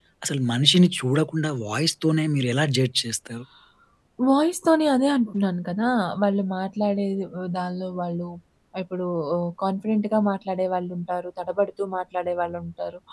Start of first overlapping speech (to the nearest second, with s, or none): none